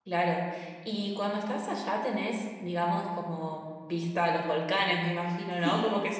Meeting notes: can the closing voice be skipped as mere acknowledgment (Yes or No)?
No